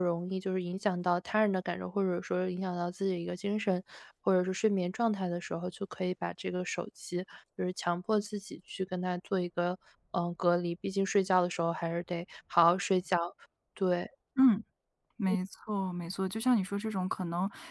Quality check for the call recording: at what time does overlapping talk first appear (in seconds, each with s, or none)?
none